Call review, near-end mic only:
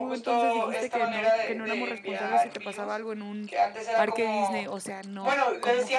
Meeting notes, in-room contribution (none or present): present